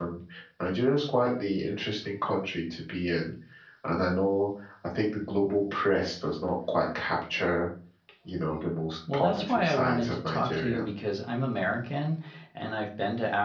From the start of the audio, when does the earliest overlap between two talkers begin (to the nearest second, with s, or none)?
9 s